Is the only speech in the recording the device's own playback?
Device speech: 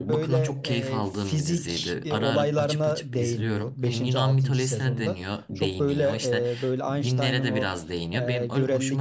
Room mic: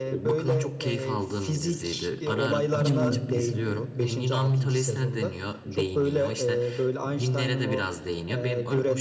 No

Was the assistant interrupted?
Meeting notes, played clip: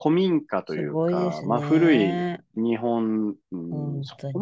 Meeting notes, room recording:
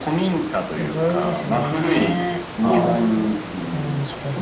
Yes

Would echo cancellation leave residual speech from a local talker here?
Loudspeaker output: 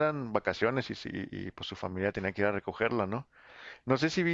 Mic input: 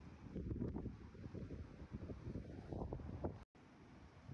No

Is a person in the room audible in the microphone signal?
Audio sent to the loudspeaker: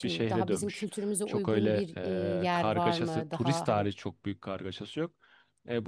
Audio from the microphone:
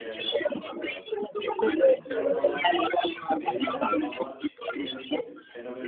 Yes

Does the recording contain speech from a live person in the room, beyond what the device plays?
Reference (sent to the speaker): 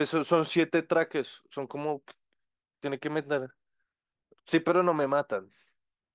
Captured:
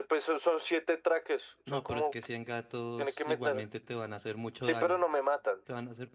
Yes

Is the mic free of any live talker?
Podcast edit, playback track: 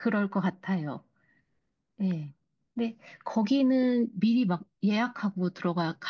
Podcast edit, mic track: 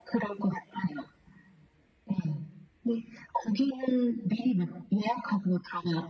Yes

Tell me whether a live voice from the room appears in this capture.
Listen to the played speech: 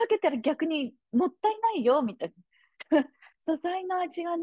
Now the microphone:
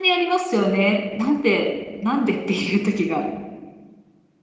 Yes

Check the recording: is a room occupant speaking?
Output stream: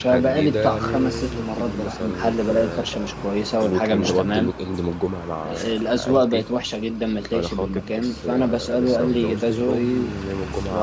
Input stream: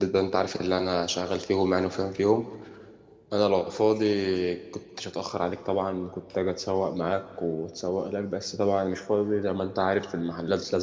Yes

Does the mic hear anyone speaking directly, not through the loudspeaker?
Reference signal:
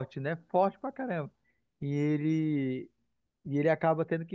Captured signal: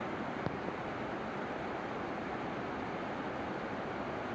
No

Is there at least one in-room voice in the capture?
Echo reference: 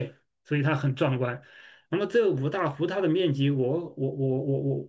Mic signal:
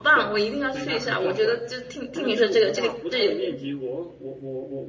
Yes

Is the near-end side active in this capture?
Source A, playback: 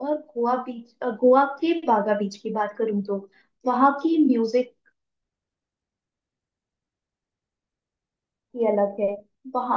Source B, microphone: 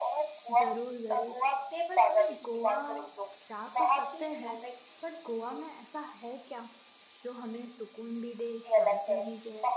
Yes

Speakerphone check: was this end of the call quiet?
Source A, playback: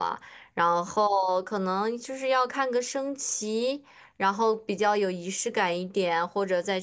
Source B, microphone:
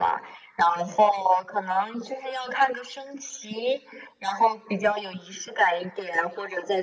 Yes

